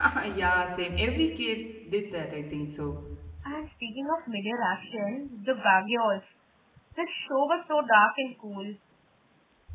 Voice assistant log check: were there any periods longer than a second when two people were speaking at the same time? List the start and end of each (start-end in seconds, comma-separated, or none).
none